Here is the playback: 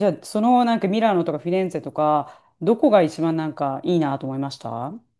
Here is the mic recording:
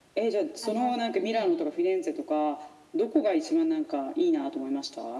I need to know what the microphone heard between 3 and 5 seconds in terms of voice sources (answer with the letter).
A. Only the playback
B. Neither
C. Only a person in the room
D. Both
A